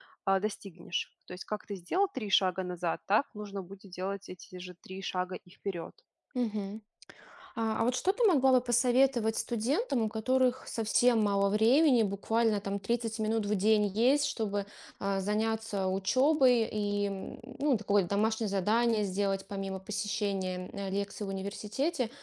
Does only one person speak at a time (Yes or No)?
Yes